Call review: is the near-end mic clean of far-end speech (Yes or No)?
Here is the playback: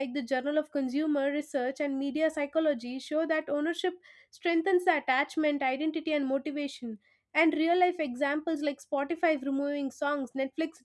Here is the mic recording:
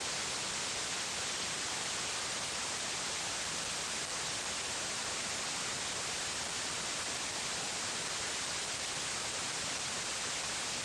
Yes